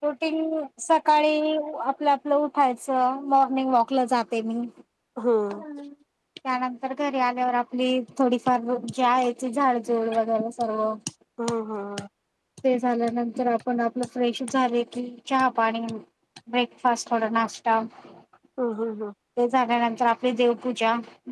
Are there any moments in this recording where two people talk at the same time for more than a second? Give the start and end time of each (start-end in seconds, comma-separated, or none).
none